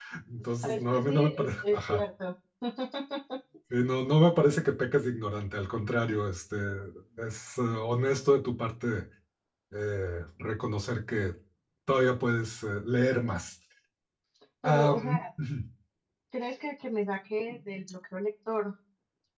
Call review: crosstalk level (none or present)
present